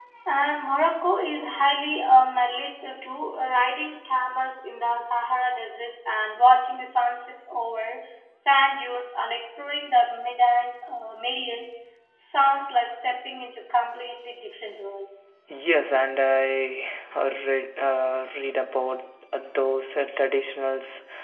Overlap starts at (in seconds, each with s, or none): none